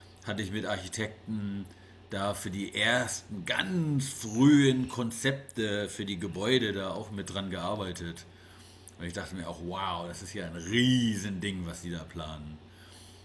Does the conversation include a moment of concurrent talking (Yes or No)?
No